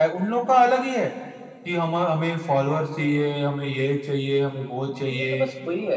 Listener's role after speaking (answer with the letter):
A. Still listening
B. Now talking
B